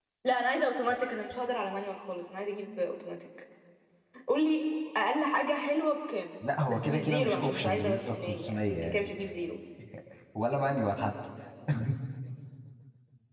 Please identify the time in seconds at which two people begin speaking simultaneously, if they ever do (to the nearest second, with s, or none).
7 s